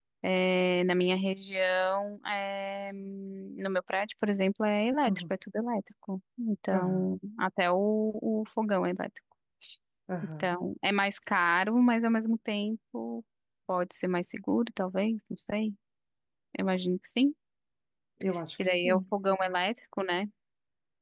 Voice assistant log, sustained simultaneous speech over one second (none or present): none